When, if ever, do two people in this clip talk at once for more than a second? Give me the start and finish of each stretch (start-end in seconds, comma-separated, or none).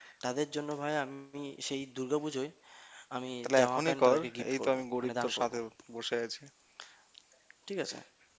3.4-5.5